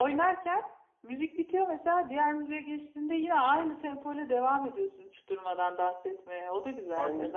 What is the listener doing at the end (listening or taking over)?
taking over